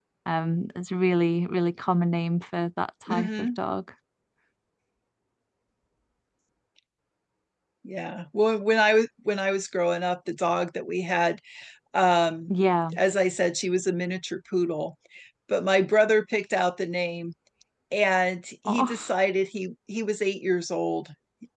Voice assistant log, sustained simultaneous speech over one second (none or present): none